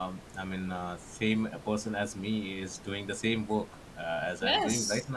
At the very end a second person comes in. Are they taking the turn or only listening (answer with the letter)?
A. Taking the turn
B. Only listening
A